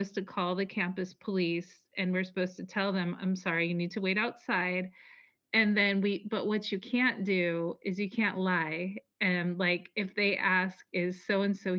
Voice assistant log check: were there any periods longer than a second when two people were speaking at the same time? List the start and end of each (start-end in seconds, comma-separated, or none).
none